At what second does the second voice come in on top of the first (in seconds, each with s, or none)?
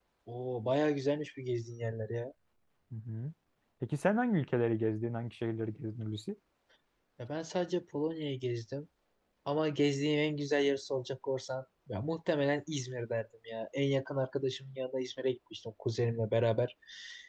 none